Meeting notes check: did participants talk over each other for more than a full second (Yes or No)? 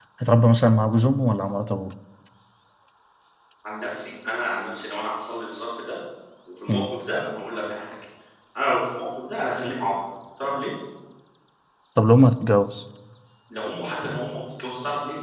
No